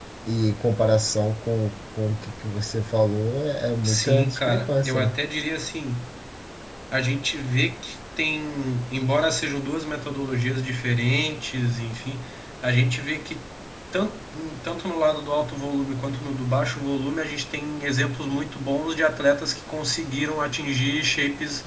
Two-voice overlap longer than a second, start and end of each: 3.8-5.1

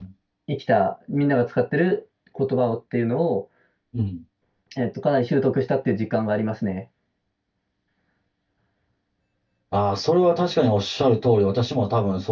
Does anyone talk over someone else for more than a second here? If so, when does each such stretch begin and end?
none

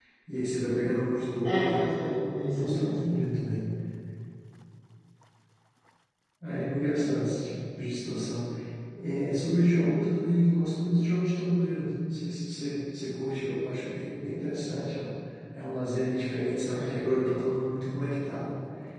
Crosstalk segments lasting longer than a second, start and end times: 1.4-3.2

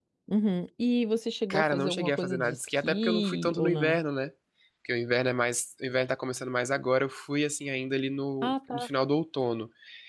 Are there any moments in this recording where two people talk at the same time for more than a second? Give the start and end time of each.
1.5-4.0

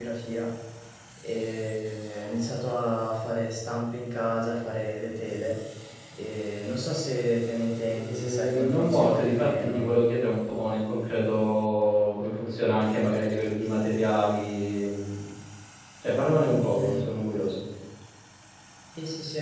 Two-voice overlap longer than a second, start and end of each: 7.8-9.9

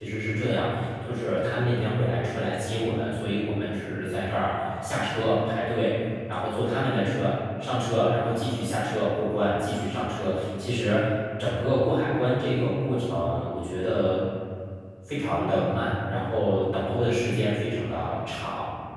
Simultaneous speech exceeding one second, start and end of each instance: none

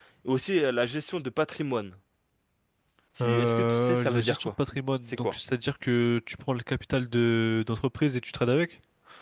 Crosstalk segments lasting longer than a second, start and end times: 3.2-4.5

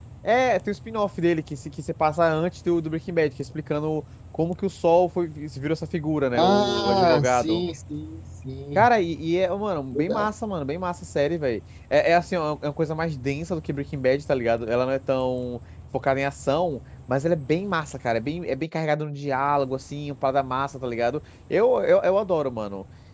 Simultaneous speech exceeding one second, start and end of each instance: 6.3-7.6

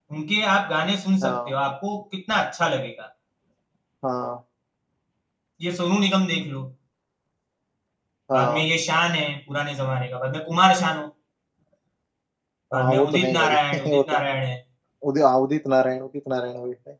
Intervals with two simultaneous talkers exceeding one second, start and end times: 12.7-14.1

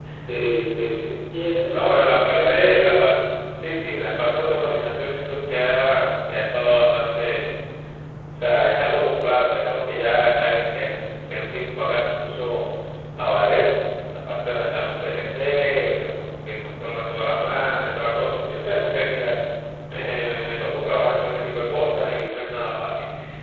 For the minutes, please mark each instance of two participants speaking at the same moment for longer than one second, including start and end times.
1.7-3.1

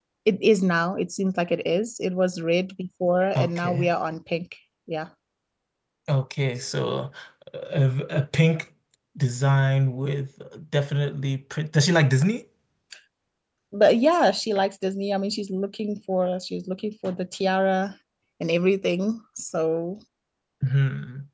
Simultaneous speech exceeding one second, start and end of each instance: none

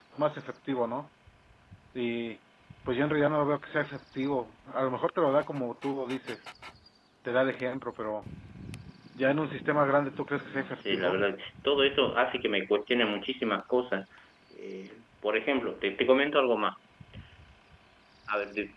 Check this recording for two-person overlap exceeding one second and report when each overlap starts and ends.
9.8-11.2

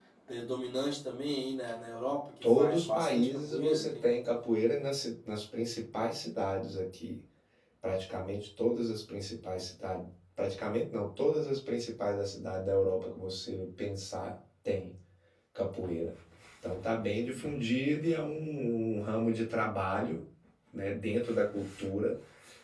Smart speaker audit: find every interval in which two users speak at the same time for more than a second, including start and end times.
2.4-4.1

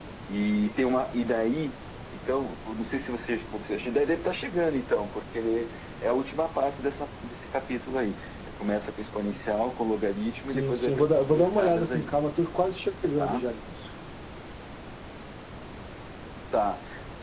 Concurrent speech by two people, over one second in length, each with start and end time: 10.5-12.1

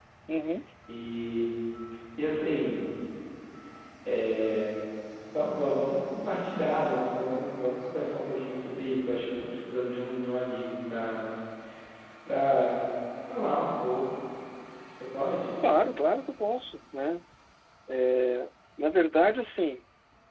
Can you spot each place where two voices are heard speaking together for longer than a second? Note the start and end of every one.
none

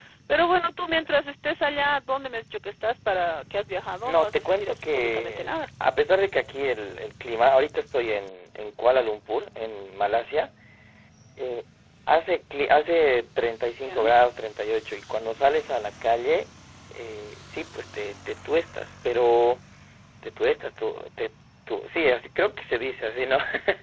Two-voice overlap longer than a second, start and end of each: 4.0-5.6

